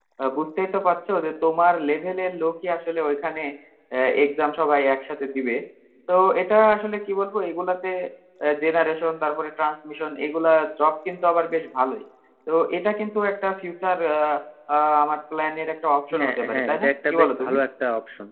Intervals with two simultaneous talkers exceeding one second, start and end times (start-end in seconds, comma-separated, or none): 16.2-17.5